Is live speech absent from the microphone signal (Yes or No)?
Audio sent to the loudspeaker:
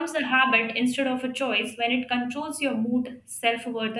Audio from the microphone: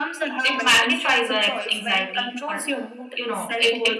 No